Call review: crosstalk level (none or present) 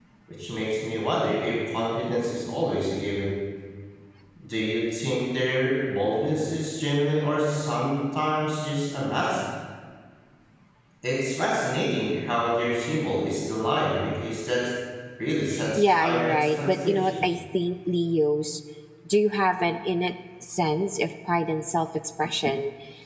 present